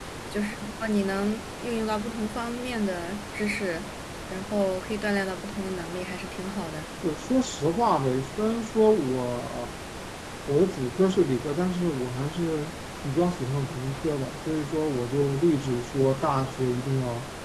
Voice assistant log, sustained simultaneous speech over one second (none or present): none